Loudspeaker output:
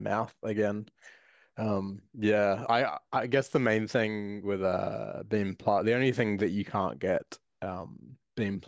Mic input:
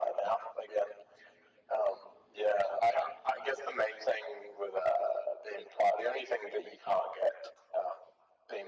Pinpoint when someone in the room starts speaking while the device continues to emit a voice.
none

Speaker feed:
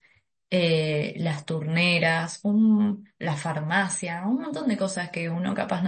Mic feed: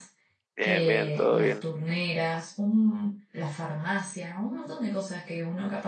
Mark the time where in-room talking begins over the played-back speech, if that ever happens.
0.6 s

